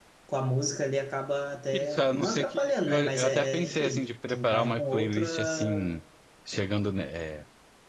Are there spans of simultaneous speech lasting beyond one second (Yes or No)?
Yes